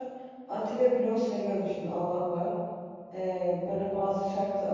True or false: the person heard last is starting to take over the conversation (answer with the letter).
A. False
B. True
A